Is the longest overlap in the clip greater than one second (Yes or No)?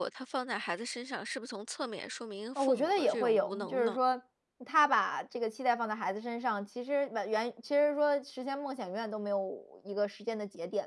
Yes